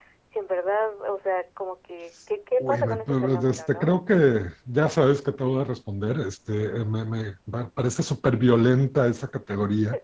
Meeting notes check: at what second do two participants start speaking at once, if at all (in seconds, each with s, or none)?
2.6 s